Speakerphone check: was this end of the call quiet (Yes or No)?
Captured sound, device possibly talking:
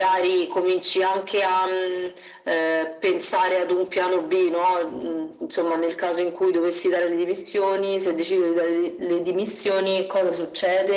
Yes